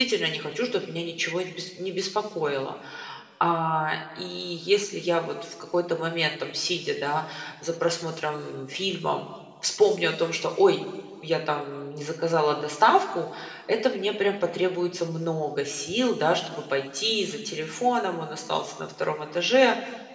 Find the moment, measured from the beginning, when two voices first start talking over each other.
none

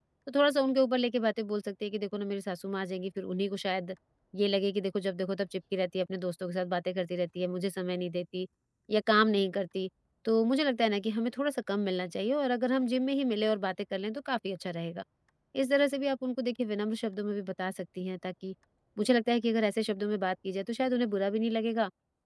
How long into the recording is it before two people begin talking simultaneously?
none

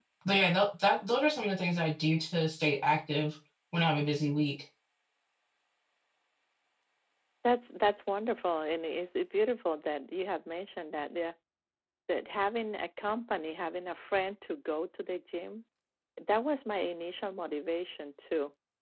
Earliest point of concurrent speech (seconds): none

